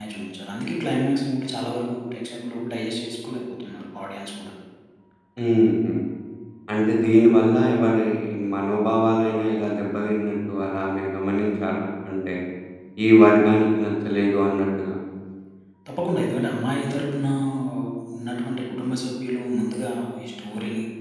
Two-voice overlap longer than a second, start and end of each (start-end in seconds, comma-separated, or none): none